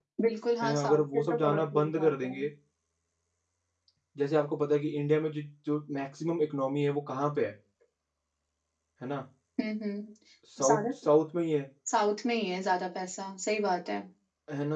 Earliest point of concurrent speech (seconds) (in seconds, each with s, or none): 0.6 s